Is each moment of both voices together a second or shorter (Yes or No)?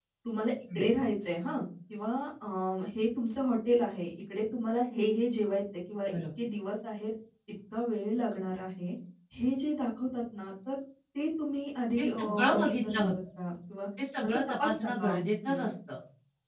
No